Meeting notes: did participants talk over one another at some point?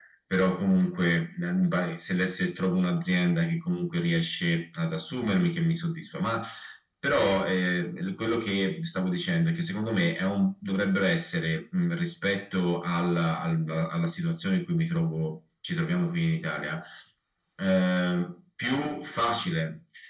No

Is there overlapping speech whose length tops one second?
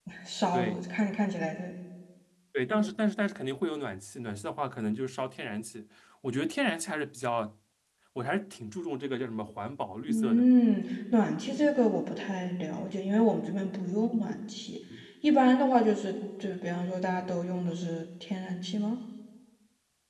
No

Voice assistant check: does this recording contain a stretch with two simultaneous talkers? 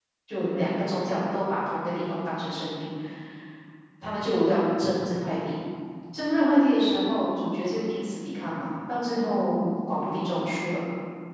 No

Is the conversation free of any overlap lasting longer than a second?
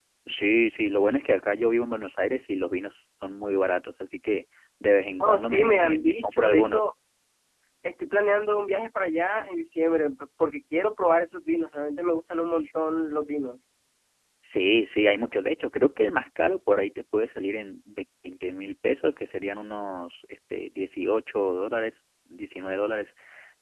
No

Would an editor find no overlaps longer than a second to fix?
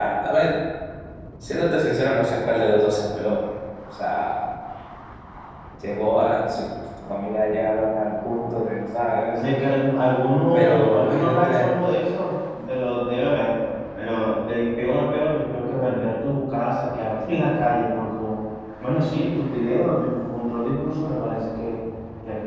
No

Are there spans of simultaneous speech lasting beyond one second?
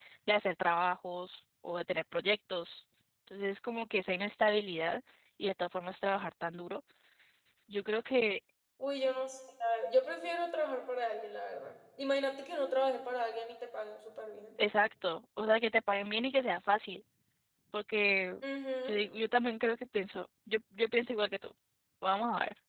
No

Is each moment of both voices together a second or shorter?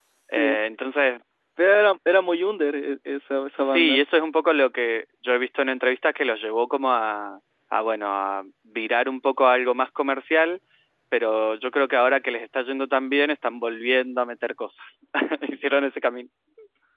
Yes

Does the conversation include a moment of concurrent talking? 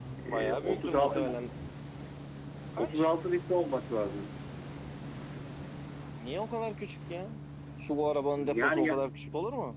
Yes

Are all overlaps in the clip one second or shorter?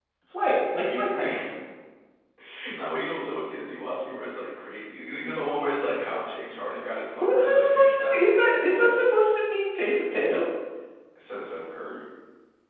No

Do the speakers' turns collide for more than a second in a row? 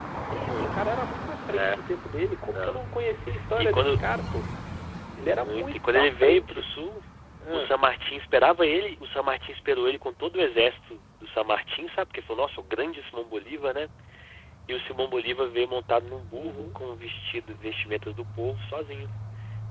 Yes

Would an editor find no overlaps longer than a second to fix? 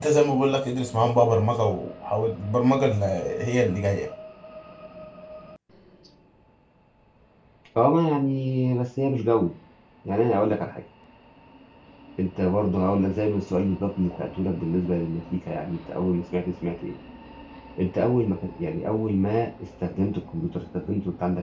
Yes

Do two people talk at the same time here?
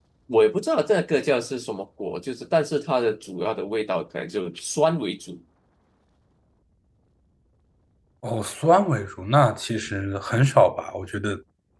No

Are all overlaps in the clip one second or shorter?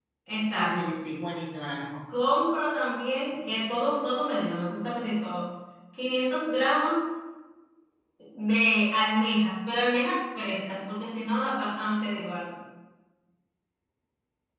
Yes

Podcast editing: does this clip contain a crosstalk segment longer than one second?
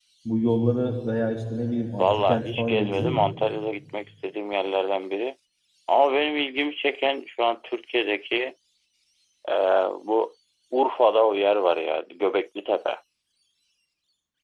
Yes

